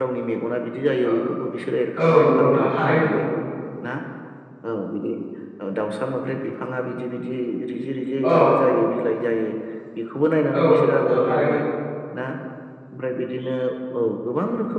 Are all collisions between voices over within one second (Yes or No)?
No